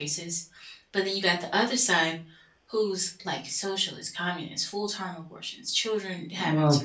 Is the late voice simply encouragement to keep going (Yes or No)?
Yes